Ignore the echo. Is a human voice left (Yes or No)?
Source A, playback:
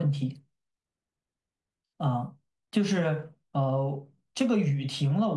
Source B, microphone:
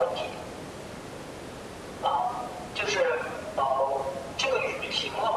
No